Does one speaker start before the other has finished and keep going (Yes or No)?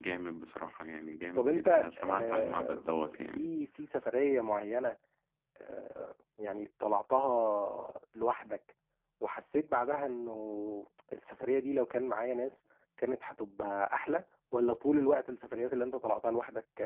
Yes